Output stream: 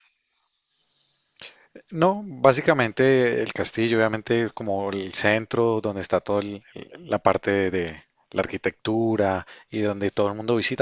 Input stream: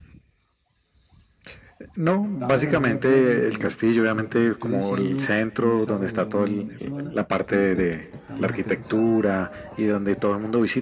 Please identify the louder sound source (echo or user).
echo